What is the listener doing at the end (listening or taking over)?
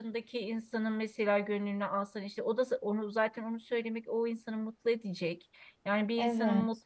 listening